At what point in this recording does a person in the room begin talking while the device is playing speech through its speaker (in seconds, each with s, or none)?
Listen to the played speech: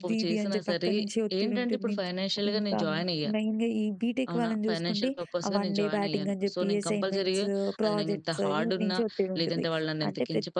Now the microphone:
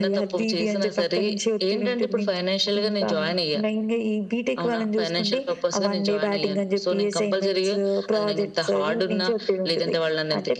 none